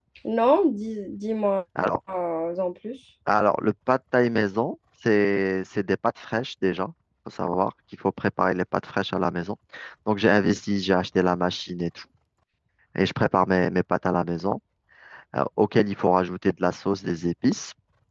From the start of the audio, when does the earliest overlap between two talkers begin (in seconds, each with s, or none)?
none